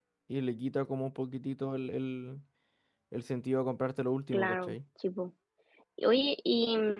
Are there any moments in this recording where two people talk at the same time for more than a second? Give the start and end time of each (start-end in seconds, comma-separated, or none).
none